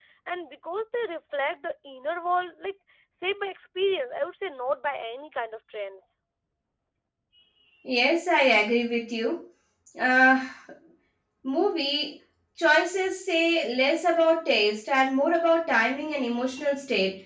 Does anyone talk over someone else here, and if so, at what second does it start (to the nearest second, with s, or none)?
none